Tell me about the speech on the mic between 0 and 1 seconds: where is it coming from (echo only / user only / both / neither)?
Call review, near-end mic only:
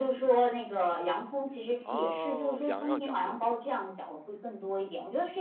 echo only